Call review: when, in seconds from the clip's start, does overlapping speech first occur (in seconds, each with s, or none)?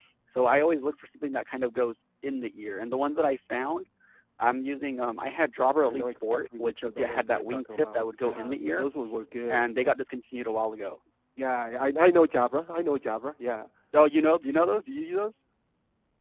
5.8 s